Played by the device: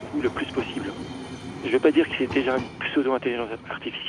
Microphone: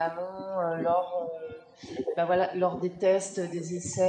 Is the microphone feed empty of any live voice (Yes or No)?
No